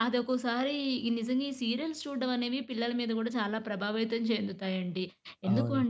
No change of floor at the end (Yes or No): Yes